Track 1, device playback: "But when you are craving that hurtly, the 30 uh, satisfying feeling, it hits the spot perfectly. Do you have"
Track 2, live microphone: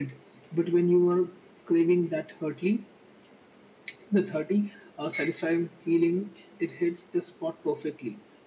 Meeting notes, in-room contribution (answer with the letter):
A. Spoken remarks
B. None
B